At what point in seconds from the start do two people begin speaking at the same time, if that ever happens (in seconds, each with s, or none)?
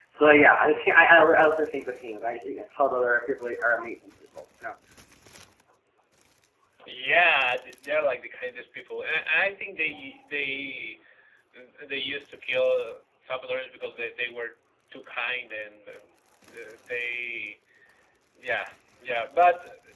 none